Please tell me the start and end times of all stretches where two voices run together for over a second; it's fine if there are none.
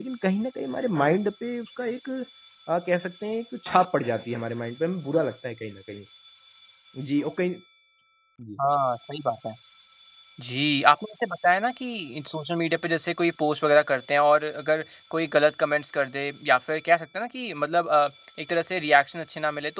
none

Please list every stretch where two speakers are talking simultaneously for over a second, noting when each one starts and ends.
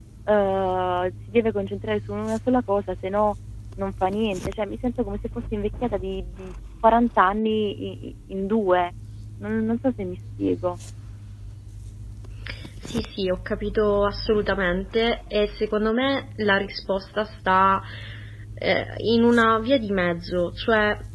none

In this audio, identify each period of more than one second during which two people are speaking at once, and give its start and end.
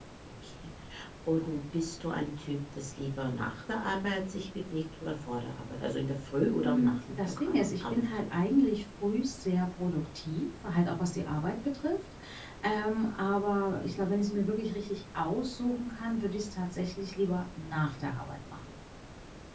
6.4-8.1

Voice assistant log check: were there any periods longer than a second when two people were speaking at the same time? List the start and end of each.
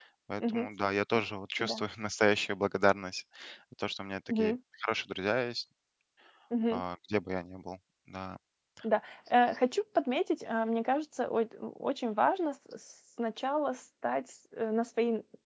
none

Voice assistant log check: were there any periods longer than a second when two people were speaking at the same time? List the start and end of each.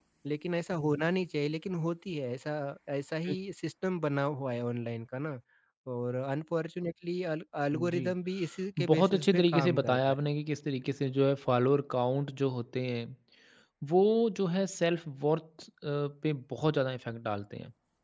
8.9-10.2

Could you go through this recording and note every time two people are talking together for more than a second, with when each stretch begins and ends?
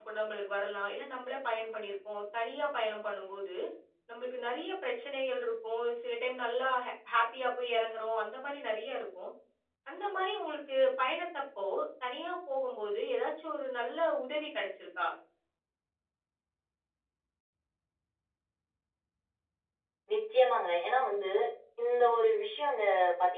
none

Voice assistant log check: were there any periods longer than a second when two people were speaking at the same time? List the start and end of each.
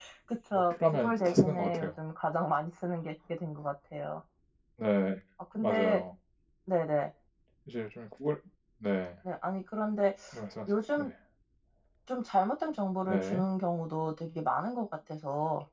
0.5-1.9

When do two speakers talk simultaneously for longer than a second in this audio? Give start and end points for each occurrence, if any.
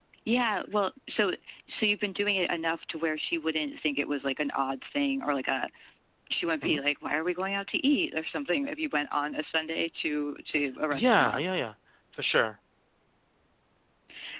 none

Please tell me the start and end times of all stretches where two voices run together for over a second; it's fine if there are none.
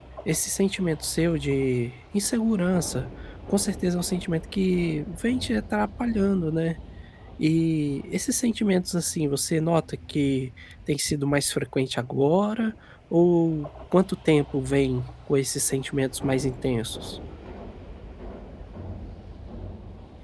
none

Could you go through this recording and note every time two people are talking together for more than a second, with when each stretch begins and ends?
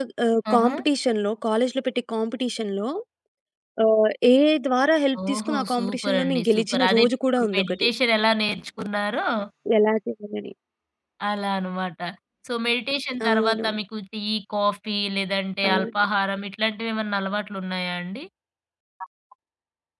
5.3-7.9

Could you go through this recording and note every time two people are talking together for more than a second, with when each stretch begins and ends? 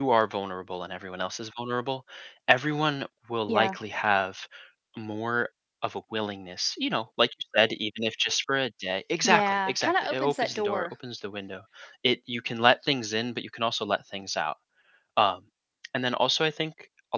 9.2-10.9

